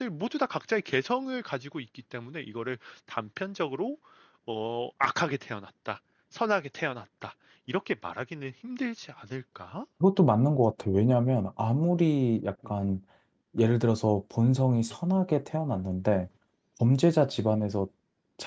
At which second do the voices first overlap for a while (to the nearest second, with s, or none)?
none